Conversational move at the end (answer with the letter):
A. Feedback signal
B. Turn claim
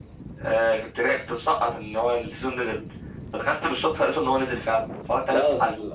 B